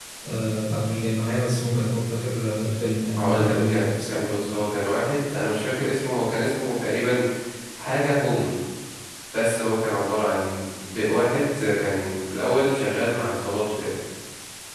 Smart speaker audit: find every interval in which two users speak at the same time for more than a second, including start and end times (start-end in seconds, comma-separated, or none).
3.2-4.5